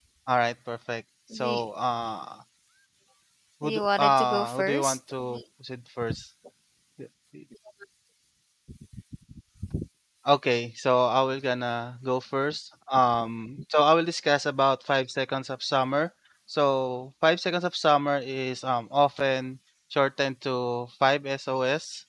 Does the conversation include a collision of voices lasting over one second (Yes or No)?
Yes